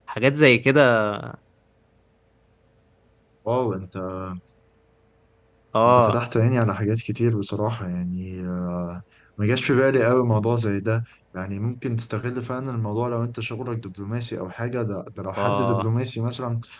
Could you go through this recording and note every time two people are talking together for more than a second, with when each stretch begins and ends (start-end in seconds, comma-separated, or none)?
none